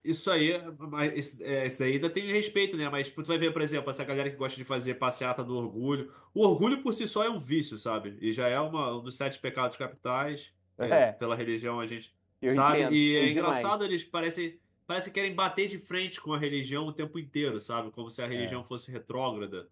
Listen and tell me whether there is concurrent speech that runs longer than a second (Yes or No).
Yes